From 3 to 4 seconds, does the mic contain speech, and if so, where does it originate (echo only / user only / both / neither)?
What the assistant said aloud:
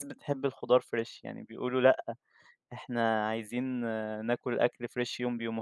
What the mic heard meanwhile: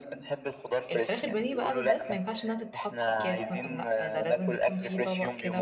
both